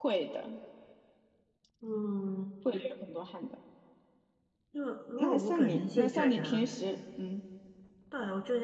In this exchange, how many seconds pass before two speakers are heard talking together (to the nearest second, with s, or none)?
5 s